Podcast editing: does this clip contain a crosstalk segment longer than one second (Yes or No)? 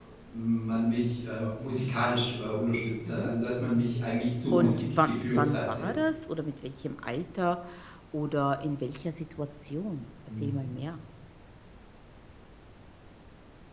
Yes